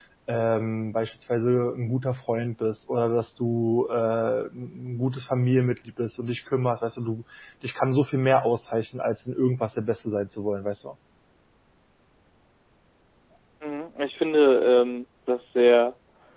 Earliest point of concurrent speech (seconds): none

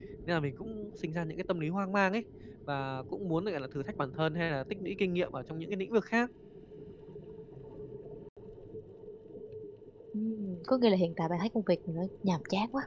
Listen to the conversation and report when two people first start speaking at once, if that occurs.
none

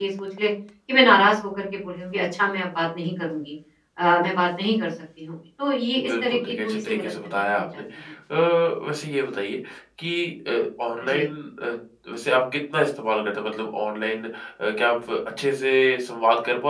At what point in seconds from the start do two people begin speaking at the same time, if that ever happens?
6 s

